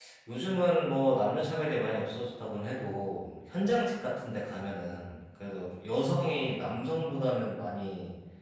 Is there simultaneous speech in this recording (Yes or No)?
No